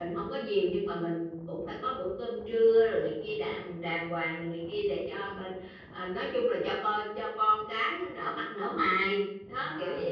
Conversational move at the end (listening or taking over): taking over